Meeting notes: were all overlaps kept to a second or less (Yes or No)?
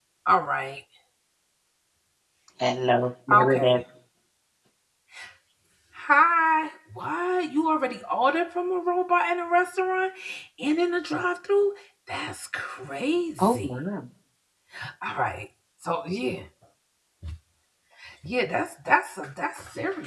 Yes